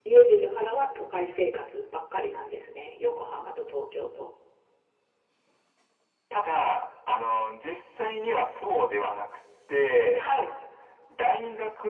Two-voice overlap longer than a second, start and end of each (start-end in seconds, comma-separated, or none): none